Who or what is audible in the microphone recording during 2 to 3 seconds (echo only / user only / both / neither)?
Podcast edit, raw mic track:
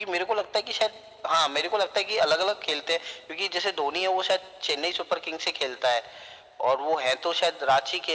echo only